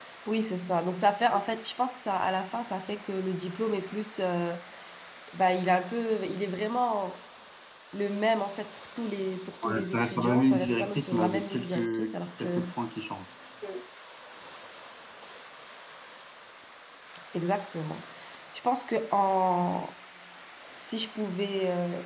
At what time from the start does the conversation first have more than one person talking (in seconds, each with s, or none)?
9.6 s